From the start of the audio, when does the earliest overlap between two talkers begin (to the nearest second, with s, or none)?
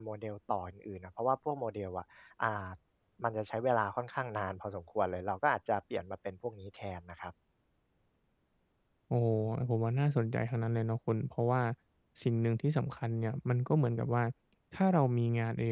none